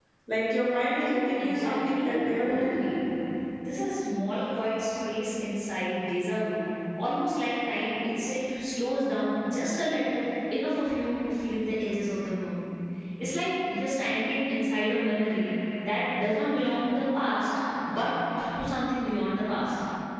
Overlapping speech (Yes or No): Yes